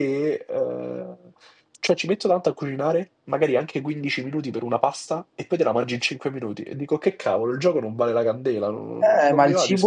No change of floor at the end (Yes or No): No